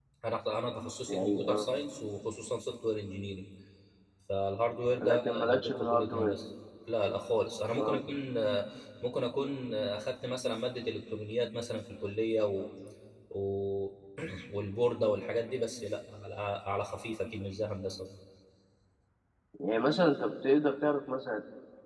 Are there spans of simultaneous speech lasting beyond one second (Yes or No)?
Yes